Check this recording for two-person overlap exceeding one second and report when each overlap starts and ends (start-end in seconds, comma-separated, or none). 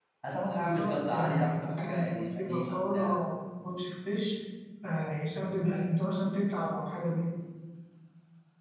0.6-3.2